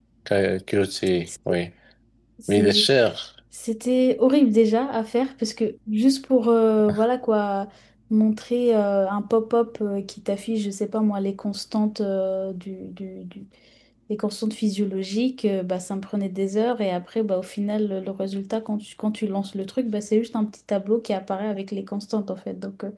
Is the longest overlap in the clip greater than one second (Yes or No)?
No